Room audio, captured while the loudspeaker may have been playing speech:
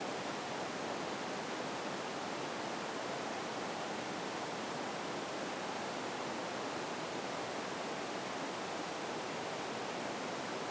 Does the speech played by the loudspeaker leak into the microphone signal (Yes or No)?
No